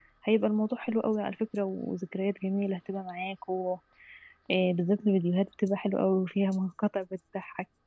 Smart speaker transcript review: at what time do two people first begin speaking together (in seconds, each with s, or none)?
none